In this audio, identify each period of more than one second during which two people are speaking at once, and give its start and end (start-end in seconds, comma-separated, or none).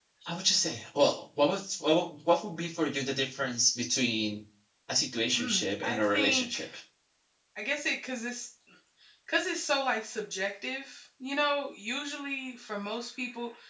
5.4-6.6